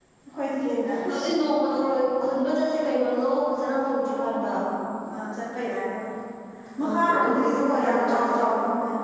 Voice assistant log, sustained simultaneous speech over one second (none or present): present